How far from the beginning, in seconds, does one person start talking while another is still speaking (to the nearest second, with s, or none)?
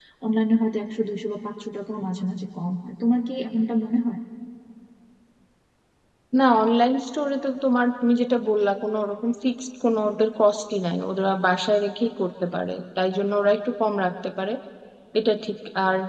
none